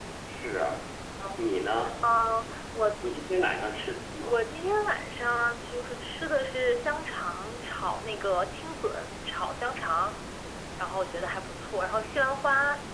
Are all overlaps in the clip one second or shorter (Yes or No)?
Yes